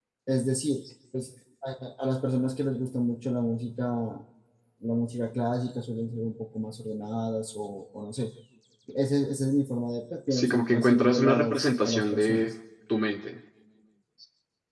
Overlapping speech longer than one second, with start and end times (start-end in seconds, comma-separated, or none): 10.3-12.5